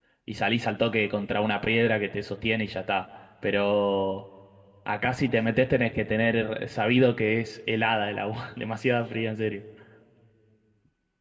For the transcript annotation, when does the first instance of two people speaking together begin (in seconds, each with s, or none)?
none